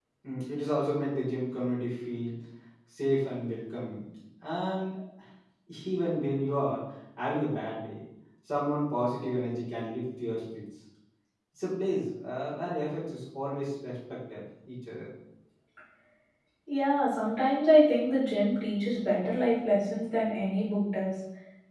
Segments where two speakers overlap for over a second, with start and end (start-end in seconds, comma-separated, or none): none